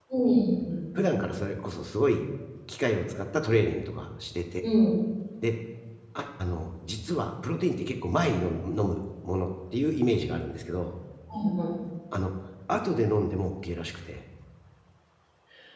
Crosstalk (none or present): none